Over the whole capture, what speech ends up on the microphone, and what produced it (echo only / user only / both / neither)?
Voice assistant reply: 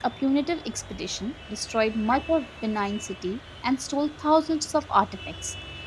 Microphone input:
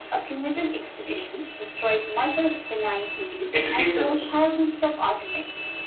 both